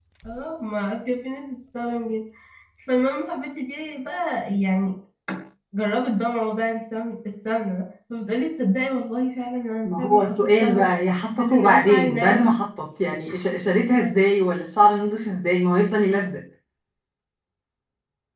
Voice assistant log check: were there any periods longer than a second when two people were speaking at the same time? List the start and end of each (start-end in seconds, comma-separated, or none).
9.8-12.5